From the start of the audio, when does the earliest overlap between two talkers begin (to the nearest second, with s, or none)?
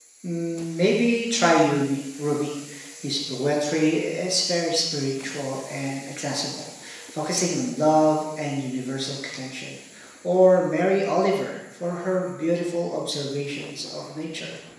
none